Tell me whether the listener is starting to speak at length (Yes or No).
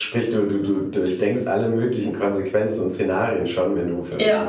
No